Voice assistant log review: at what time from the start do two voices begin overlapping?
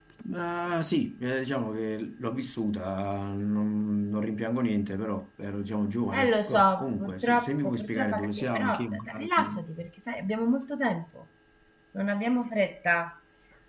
6.1 s

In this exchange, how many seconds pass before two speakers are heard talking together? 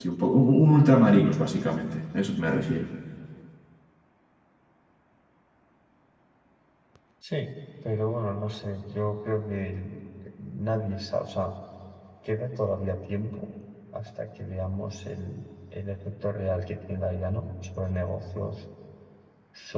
none

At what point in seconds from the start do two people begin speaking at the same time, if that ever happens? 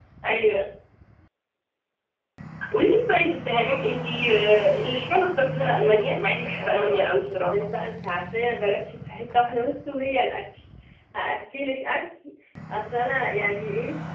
5.6 s

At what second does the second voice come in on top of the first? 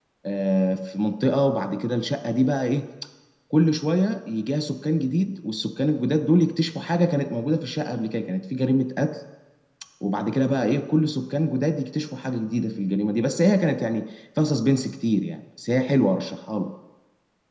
none

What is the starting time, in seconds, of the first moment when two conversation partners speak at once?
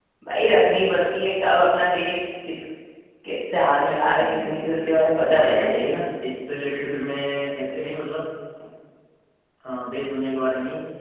4.0 s

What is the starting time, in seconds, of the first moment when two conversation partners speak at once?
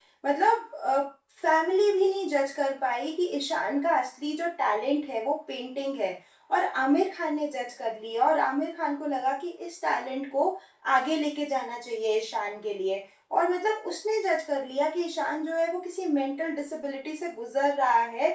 none

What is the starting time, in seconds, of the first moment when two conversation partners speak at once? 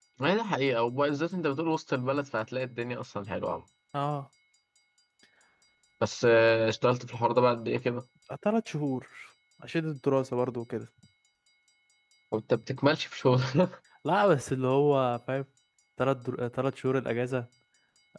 none

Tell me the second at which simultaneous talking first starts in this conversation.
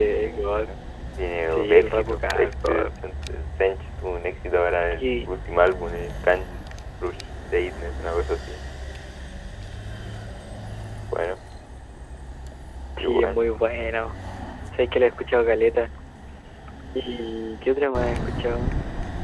1.4 s

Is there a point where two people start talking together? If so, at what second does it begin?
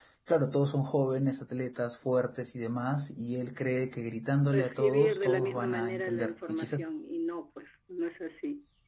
4.5 s

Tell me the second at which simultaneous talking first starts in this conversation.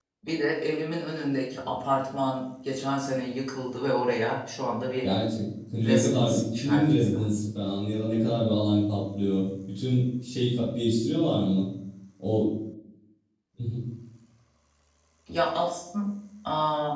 5.8 s

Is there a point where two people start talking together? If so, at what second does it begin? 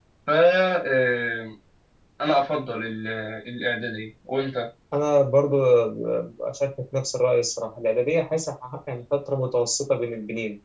none

